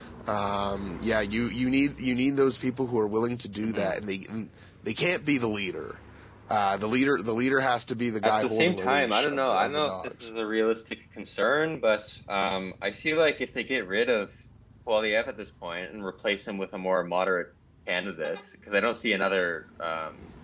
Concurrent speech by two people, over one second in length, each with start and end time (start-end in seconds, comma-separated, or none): 8.2-10.3